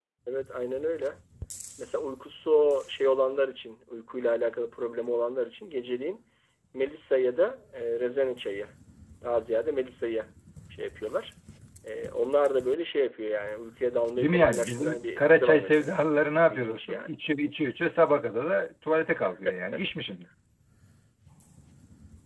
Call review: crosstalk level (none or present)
present